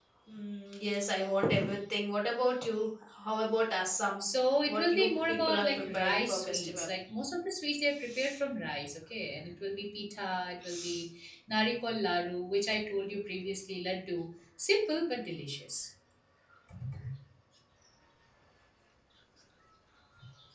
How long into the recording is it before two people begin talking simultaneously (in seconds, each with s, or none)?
4.7 s